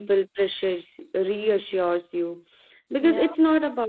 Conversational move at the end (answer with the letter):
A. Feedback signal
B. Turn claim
A